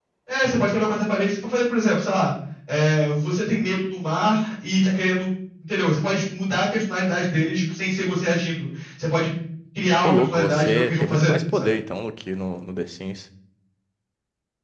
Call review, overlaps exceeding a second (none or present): present